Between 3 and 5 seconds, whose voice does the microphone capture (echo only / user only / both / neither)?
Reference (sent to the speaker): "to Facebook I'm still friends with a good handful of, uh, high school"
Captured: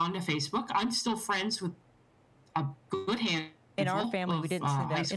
both